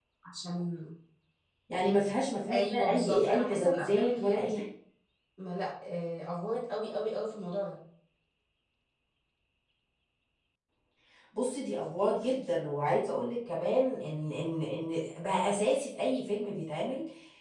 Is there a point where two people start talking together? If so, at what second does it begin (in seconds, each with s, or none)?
2.5 s